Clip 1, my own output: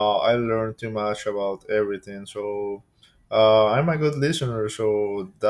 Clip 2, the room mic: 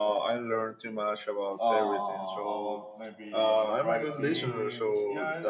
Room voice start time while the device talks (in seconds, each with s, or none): 1.6 s